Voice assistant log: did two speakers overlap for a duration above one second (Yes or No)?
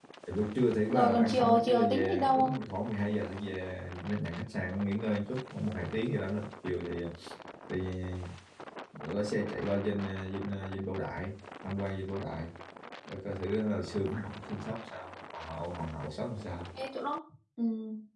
Yes